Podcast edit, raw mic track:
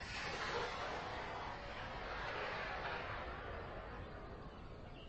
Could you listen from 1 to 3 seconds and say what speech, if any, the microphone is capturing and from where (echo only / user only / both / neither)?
neither